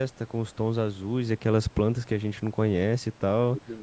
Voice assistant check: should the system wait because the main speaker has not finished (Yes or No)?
No